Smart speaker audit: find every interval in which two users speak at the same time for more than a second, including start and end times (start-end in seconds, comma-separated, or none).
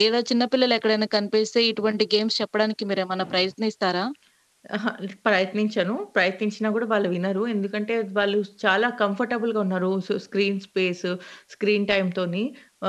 none